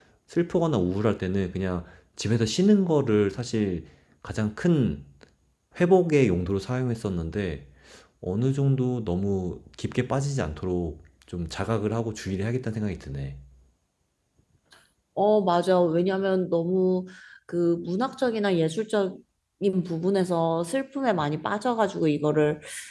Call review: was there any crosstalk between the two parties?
No

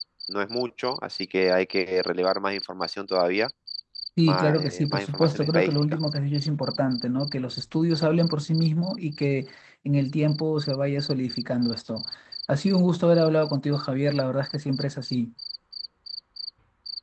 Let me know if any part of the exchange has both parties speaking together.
Yes, from 4.2 s

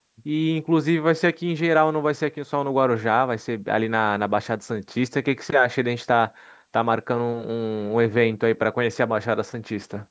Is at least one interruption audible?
No

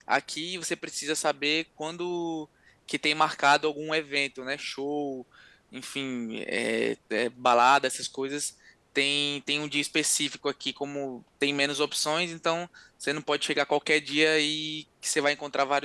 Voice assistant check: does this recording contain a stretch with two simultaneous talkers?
No

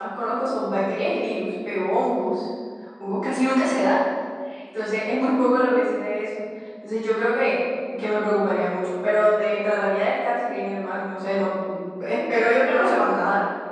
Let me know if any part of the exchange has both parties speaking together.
No

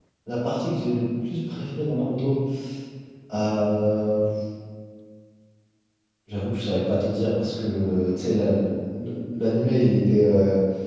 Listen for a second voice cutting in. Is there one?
No

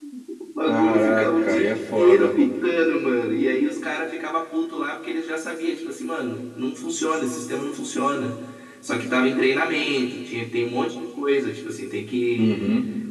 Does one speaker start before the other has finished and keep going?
Yes, from 0.7 s

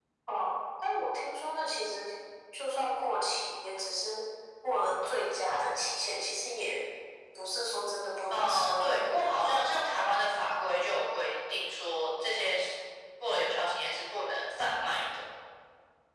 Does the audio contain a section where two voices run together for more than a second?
Yes, from 8.3 s

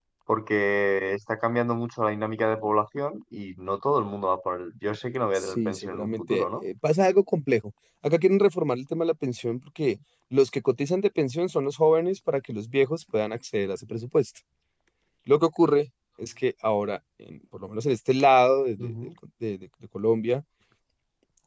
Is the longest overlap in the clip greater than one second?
Yes, from 5.4 s

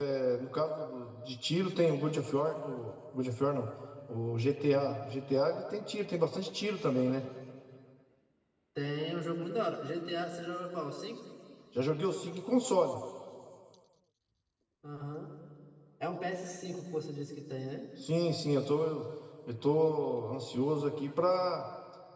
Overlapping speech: No

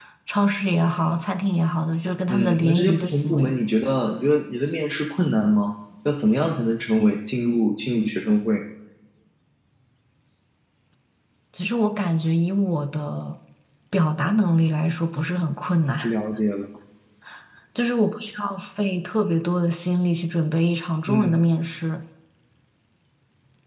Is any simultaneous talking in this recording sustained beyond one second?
Yes, from 2.3 s

